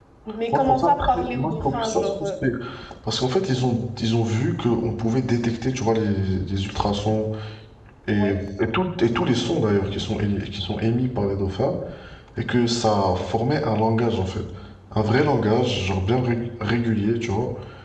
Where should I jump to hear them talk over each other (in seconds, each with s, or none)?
0.5 s